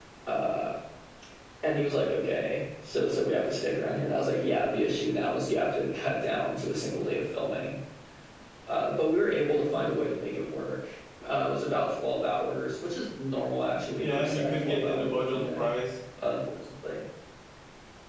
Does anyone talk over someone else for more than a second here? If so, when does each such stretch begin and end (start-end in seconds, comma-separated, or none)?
14.0-15.7